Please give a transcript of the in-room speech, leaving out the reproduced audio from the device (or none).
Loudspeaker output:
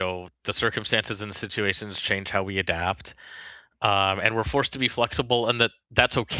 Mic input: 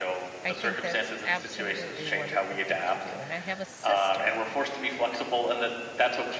I think that's absolutely a wonderful thing to do. And I have a sister